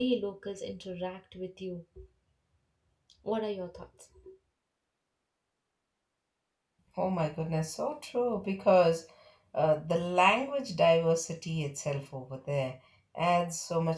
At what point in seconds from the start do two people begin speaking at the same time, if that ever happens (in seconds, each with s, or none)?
none